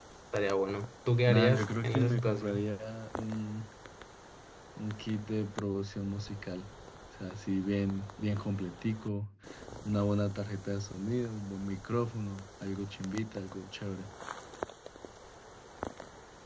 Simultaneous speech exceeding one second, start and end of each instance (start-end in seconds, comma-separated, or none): 1.3-2.7